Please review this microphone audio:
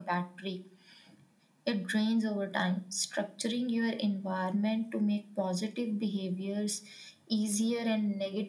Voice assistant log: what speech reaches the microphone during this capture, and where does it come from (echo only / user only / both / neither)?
echo only